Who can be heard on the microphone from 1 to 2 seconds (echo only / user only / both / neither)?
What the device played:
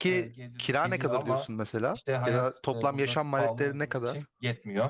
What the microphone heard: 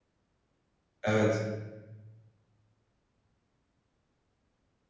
user only